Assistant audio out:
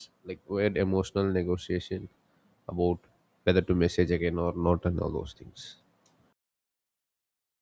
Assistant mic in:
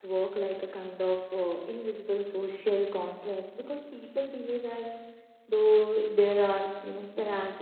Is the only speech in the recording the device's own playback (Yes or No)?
No